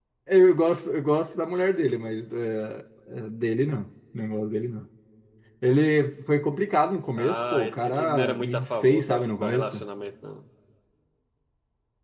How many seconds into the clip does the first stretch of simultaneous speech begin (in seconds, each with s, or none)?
7.2 s